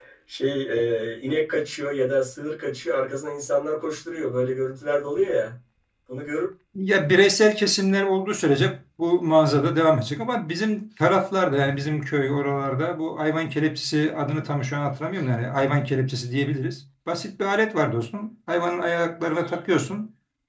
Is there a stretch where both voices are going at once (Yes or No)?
No